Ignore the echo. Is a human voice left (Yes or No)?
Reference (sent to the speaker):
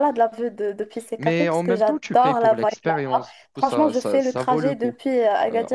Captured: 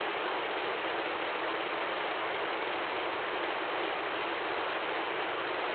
No